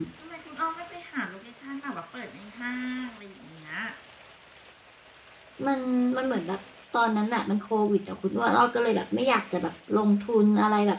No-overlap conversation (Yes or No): Yes